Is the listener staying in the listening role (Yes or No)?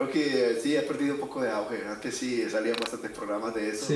No